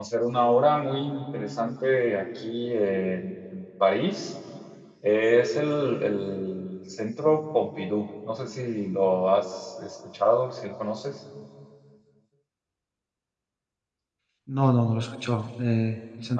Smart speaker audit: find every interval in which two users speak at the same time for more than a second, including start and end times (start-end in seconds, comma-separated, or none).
none